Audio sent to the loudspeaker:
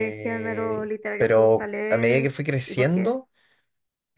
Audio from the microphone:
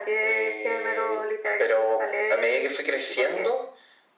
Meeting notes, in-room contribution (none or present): none